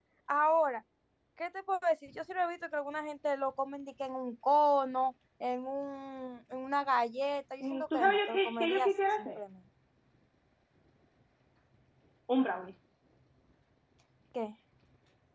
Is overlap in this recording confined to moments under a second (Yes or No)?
No